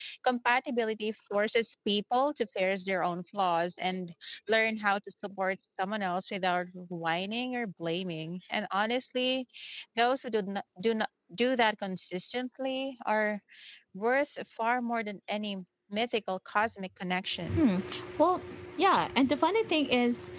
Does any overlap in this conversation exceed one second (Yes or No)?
No